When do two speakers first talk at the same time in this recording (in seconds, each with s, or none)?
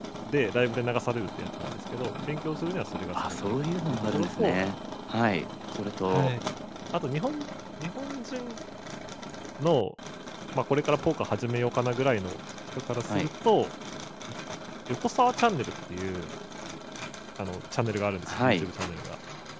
3.1 s